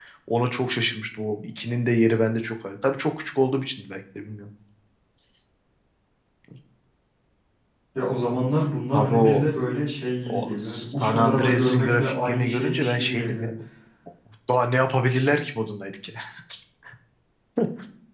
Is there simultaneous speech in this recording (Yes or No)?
Yes